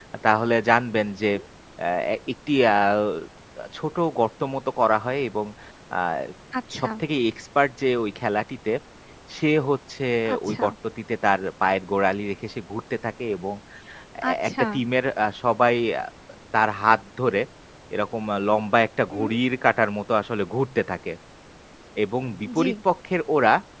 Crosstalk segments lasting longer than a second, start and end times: none

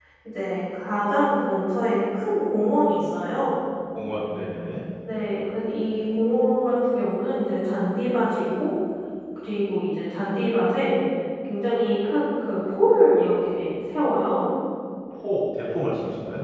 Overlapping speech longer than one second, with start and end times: none

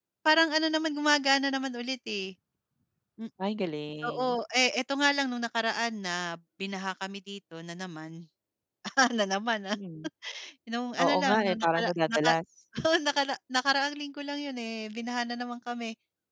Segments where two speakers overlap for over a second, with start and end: 11.0-12.3

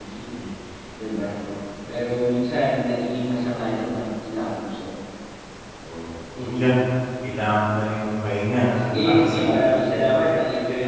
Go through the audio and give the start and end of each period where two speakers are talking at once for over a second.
8.8-10.0

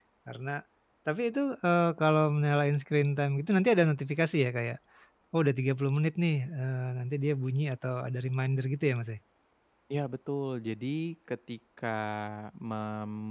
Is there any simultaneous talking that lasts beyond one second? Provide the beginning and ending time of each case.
none

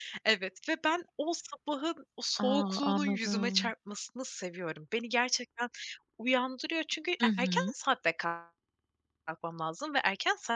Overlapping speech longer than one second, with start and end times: 2.4-3.7

